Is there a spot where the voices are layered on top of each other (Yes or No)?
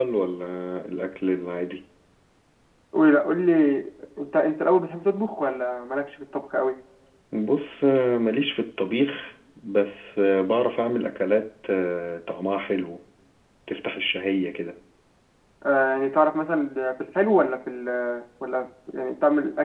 No